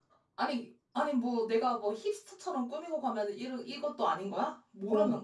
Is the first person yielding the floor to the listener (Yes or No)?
Yes